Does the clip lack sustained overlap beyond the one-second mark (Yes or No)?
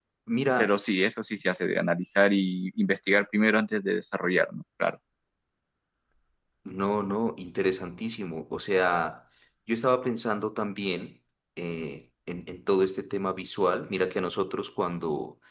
Yes